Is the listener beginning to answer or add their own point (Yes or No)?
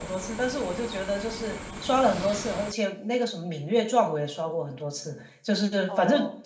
No